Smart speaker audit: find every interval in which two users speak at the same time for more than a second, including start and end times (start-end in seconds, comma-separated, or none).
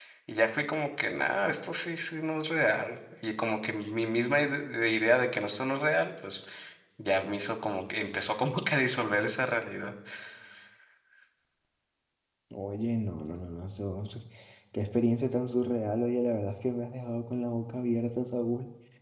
none